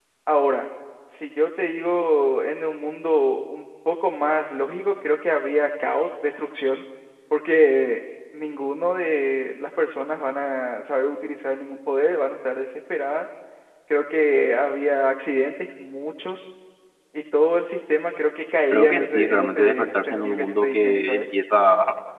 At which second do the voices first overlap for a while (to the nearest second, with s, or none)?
19 s